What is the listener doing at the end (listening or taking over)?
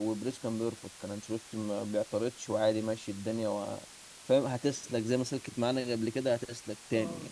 listening